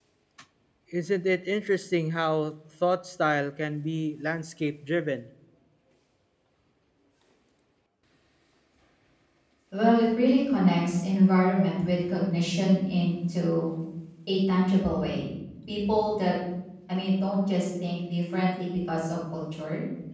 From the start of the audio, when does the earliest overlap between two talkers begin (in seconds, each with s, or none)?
none